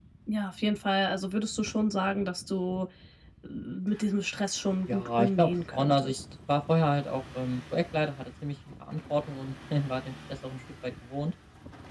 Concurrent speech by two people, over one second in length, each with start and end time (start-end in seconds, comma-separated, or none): 4.9-6.2